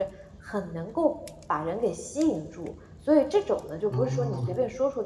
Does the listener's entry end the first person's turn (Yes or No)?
No